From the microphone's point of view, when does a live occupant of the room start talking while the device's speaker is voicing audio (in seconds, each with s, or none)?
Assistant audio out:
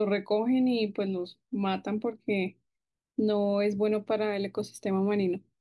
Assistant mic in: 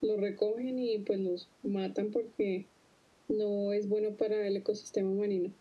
none